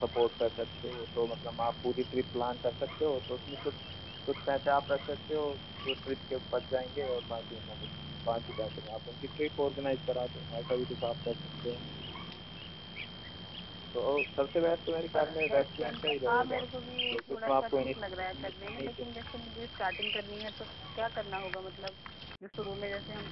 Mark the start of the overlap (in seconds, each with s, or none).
15.2 s